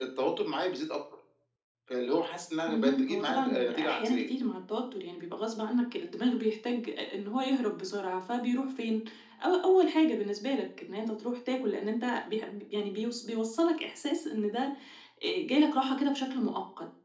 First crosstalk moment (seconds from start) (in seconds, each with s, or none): 2.7 s